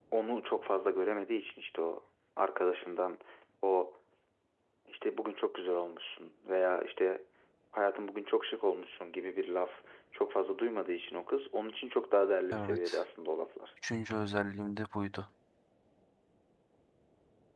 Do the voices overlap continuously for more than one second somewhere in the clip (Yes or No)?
No